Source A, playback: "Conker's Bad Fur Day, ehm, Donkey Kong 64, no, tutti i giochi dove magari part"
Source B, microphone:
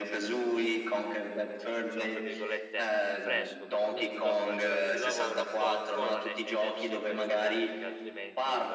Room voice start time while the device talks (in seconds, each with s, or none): 1.9 s